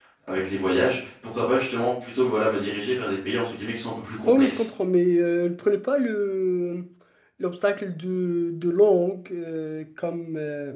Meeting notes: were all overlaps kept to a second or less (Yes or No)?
Yes